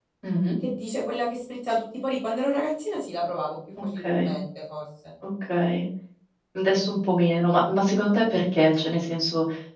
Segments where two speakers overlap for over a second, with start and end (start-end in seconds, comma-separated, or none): none